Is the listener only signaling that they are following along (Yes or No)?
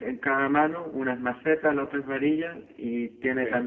Yes